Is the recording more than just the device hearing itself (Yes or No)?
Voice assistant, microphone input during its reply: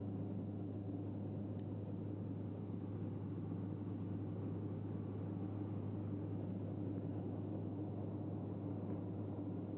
No